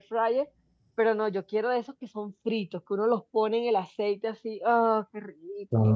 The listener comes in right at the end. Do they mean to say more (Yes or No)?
Yes